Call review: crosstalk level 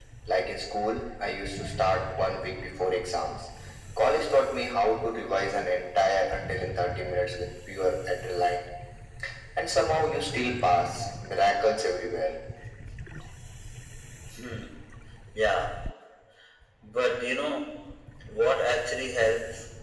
none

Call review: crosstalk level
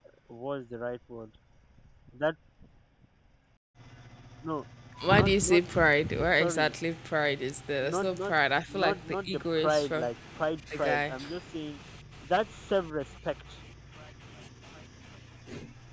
present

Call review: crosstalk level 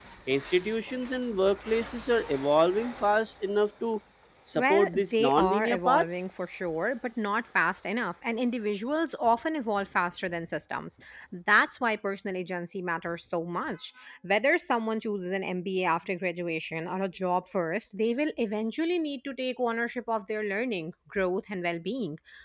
present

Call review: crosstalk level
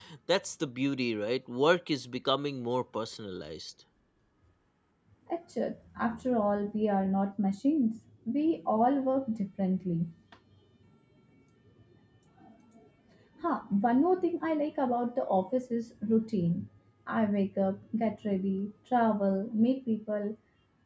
none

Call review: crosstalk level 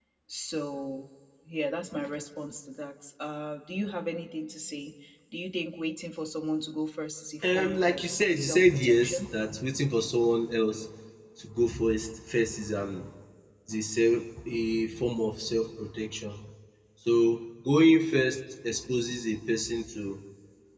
present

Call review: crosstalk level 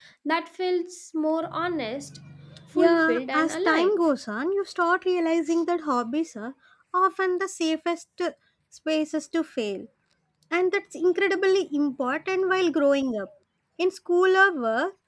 present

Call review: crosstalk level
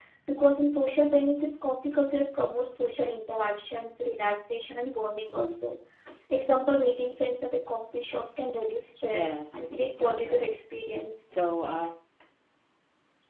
present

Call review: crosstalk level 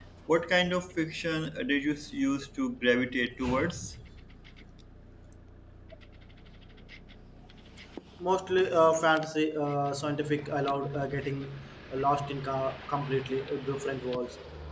none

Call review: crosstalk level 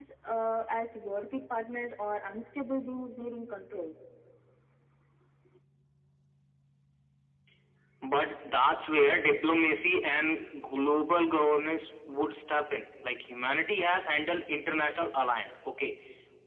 none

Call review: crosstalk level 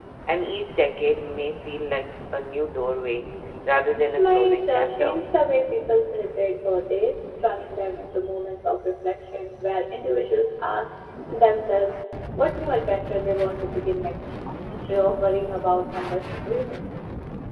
present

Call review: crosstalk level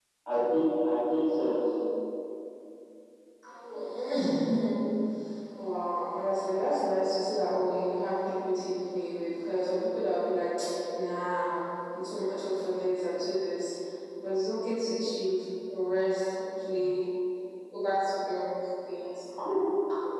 none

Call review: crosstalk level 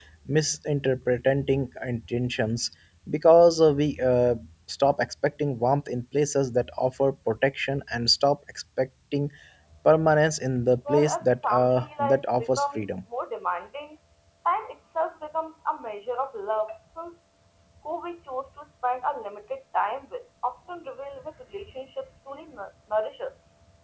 present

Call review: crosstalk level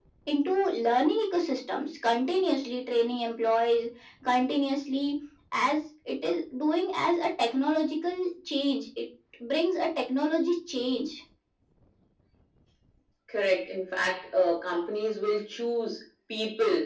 none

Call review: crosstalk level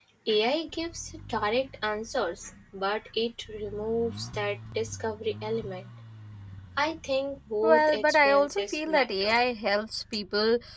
present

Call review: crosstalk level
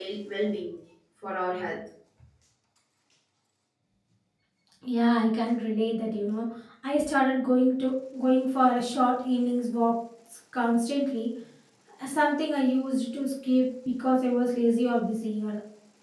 none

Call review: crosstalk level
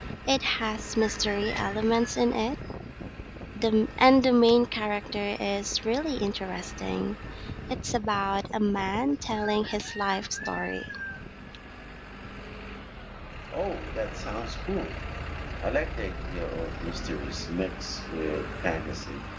none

